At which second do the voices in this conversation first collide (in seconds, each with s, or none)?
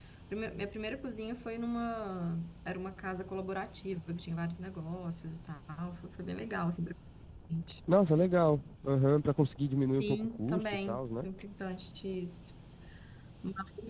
10.0 s